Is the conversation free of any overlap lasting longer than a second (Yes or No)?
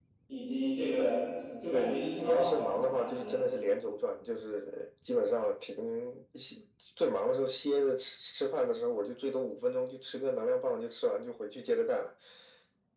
No